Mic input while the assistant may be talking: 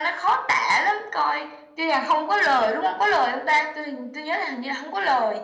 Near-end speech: none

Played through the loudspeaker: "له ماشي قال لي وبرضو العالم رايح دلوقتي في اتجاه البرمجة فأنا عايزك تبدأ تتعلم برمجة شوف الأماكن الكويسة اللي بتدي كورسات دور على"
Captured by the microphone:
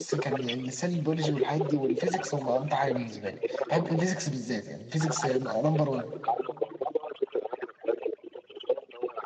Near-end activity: present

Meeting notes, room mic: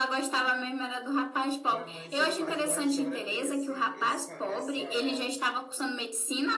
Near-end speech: present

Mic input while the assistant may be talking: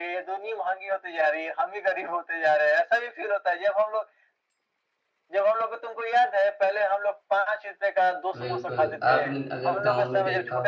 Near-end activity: present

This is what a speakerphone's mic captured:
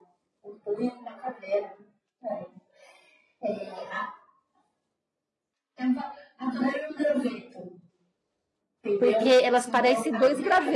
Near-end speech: present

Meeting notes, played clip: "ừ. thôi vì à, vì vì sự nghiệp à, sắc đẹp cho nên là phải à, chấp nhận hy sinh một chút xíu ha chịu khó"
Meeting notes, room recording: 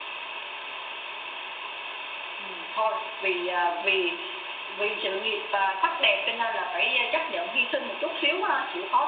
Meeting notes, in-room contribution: none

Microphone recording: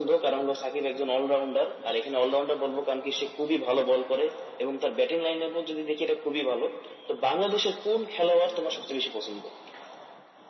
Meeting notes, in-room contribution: none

